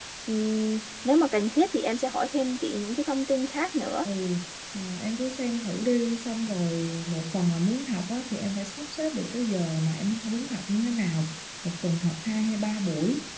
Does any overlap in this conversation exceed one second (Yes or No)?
No